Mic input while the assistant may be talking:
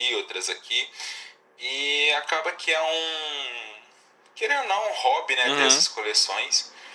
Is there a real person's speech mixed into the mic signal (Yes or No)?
Yes